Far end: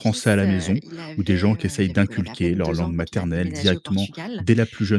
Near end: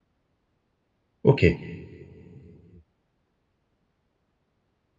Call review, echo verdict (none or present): none